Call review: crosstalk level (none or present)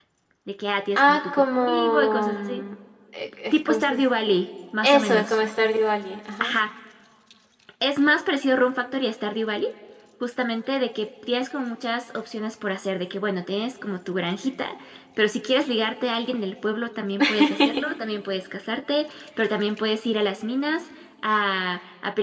present